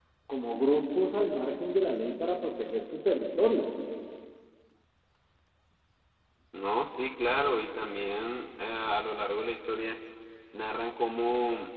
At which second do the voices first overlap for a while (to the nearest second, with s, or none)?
none